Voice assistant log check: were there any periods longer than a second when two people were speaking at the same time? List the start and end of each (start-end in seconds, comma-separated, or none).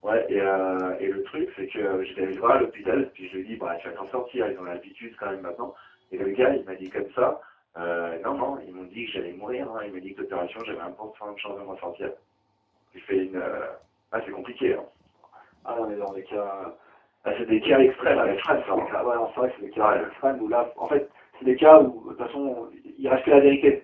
17.6-18.9